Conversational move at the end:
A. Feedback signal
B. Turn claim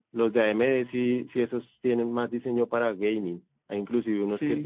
A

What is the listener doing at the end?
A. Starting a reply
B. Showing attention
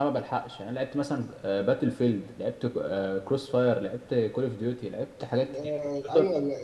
A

